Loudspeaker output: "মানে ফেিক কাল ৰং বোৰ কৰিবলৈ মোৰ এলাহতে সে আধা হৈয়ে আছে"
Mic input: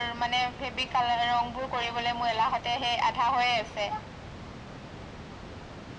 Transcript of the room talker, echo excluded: none

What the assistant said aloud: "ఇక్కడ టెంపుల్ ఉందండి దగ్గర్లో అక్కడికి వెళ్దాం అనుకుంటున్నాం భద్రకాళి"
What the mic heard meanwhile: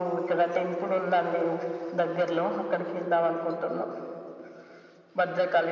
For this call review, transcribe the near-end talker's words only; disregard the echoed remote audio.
none

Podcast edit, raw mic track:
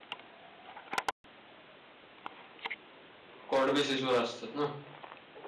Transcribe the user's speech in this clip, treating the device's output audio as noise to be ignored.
कॉट बेसिस वर असतात ना

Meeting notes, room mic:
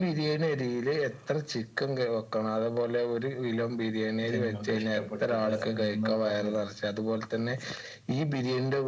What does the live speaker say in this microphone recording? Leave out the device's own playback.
ജനങ്ങൾക്ക് ഇഷ്ടപ്പെട്ടത് എന്നൊന്ന് പറഞ്ഞു തരൂ

